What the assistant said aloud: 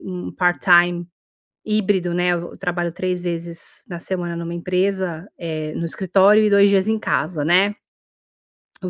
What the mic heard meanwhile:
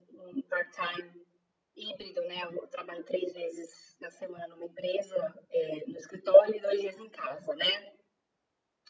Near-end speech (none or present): none